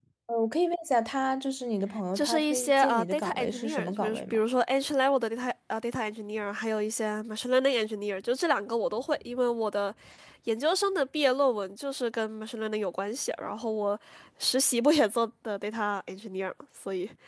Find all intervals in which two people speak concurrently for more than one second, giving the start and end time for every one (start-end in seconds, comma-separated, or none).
2.1-4.4